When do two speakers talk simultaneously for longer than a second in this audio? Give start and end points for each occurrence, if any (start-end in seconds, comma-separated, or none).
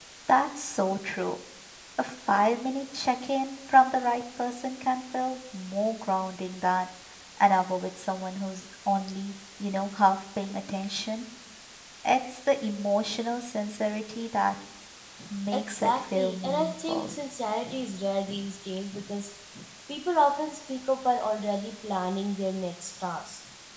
15.5-17.1